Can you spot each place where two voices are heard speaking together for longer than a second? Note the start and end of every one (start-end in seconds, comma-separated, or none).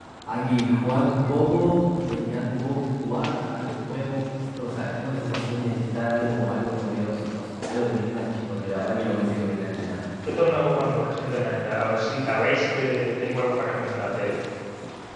none